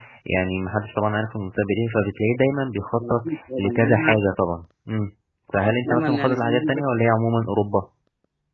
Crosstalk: present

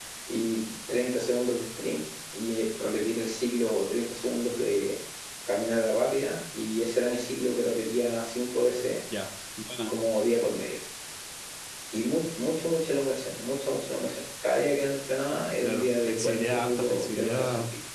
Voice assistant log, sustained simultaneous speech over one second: present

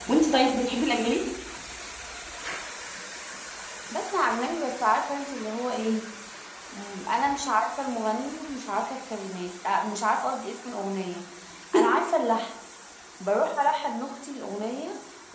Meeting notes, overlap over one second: none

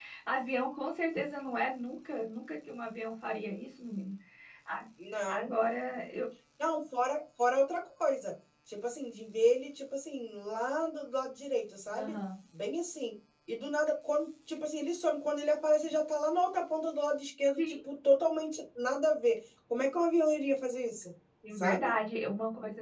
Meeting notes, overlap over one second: none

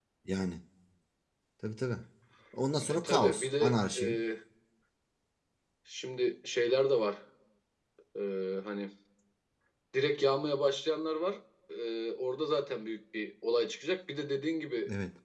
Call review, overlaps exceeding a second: present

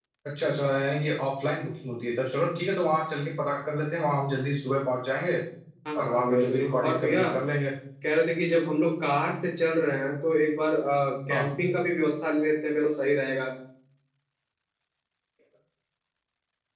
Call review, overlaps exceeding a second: present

